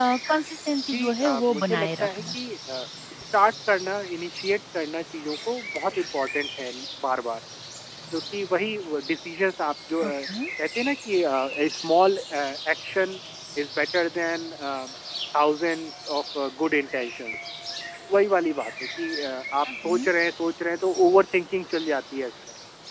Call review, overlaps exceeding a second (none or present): present